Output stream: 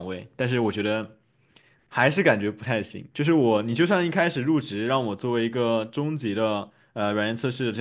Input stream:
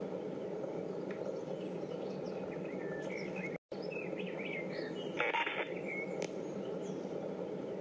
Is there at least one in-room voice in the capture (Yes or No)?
No